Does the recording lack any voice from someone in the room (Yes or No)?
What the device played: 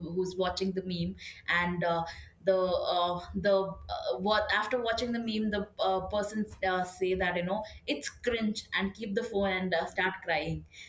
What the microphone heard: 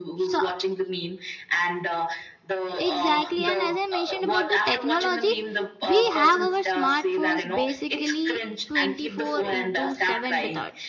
No